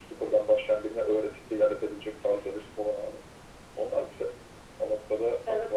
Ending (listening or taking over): taking over